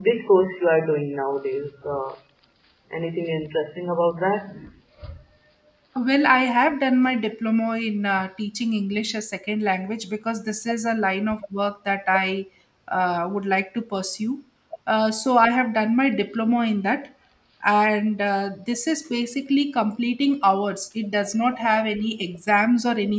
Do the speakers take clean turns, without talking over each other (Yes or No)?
Yes